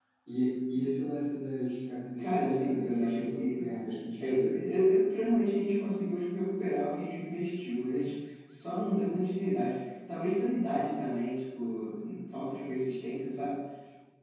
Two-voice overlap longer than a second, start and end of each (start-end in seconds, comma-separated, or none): 2.2-3.6